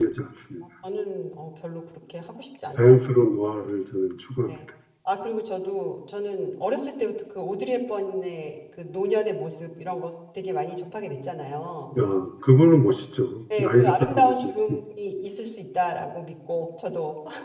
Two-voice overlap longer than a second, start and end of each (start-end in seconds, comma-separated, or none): 13.6-14.8